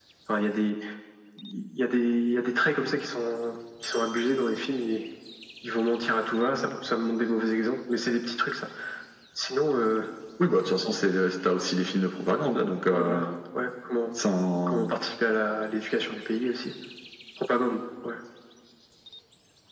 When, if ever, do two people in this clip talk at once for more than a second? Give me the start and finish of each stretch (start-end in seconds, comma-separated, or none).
none